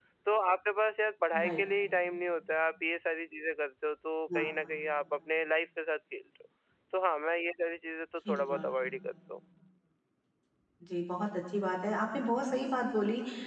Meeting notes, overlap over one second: none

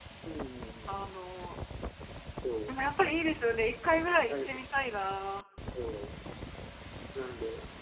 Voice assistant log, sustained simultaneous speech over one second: none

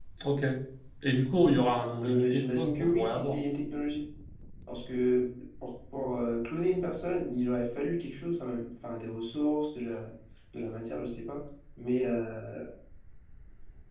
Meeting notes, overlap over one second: present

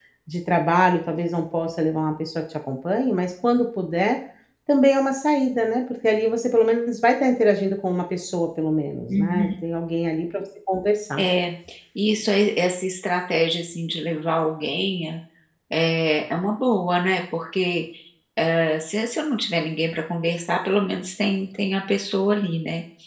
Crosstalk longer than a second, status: none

